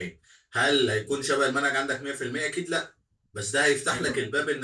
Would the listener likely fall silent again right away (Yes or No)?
Yes